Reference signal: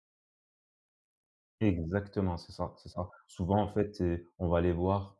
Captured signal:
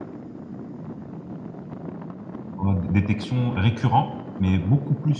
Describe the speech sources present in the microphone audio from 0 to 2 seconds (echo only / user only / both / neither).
neither